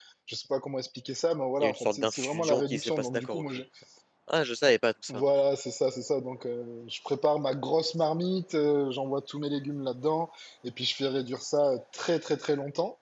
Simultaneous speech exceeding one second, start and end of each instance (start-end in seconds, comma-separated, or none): 1.6-3.4